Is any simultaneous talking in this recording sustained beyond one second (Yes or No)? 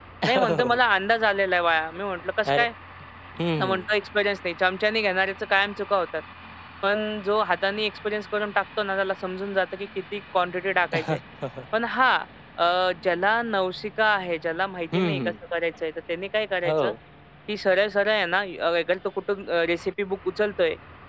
No